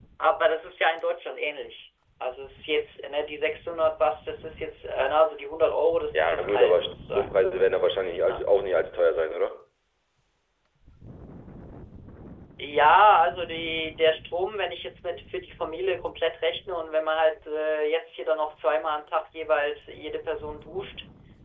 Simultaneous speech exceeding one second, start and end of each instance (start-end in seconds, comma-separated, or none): 6.1-7.4